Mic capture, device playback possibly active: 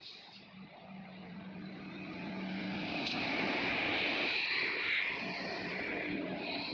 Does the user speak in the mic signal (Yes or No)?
No